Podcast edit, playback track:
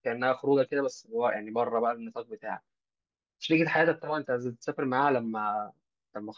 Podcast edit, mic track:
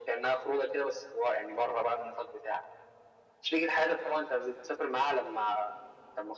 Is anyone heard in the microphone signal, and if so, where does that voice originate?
echo only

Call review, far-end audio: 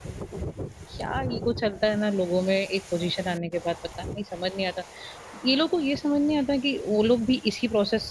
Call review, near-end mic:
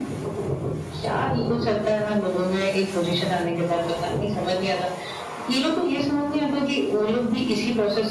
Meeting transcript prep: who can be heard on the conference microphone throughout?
echo only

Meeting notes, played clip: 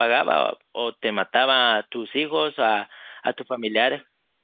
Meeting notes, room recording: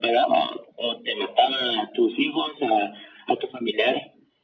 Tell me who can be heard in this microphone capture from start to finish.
echo only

